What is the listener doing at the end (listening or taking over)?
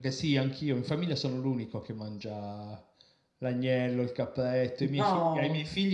listening